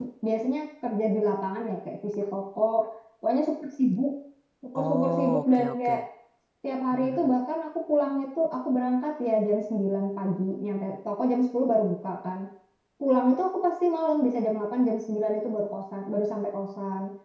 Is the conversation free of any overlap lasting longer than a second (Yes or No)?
No